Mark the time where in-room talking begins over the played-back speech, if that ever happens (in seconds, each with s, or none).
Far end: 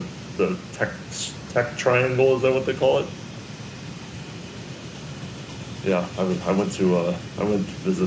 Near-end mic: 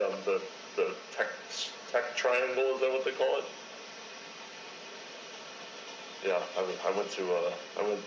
none